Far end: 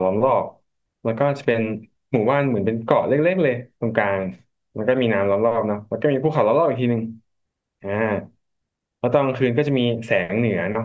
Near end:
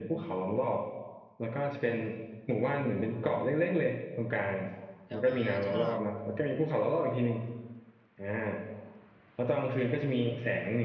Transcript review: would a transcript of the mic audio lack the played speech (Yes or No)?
No